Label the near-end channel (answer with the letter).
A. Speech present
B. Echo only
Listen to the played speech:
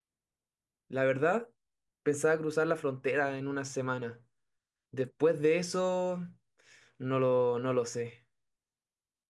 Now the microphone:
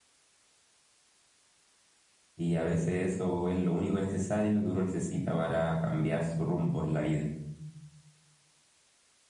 A